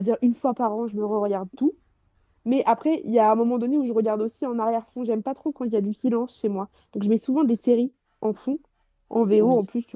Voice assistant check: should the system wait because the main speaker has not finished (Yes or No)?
Yes